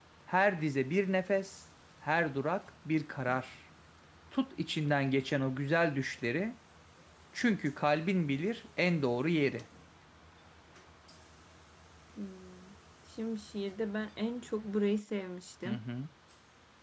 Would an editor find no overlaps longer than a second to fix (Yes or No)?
Yes